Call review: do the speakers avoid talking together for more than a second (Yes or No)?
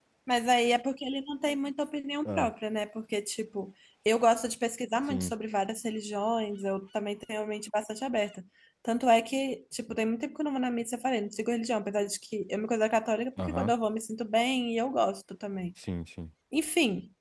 Yes